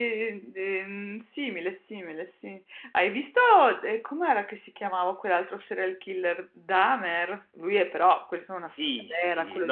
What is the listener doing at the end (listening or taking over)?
taking over